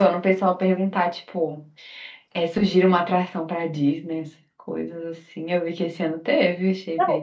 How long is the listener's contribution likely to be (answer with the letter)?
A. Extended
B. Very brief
A